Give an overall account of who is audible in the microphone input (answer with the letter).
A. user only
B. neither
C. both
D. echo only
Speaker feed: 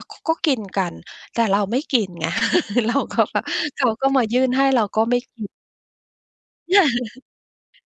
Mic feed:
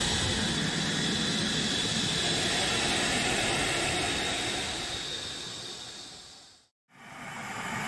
B